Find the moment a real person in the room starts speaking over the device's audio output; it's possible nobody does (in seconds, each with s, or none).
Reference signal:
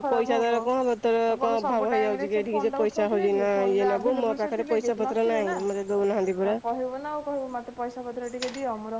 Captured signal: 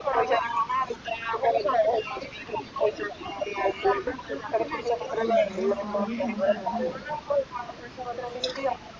5.2 s